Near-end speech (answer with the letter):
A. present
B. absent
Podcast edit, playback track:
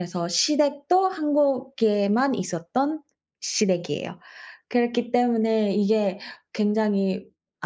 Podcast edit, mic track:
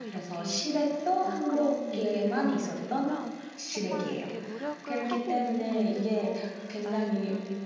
A